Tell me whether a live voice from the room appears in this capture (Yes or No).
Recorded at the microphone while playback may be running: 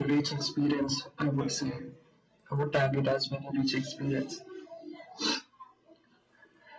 Yes